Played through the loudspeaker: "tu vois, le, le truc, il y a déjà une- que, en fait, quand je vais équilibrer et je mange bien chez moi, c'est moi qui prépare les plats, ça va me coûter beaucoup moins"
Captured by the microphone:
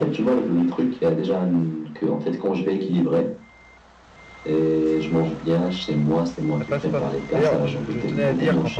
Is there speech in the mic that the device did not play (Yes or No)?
Yes